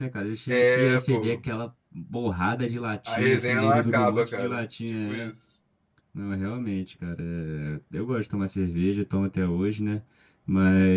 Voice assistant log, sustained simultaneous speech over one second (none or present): present